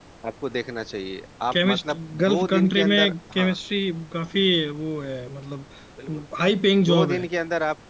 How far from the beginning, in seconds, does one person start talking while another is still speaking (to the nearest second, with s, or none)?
2 s